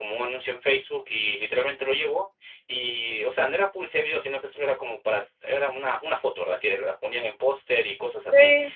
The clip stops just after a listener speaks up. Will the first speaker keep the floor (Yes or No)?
Yes